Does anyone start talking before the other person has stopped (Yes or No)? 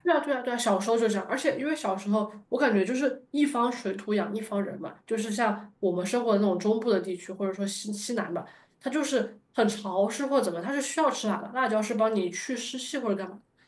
No